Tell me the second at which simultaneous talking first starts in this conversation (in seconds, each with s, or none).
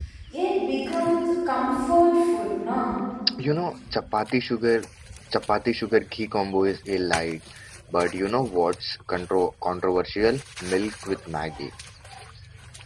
none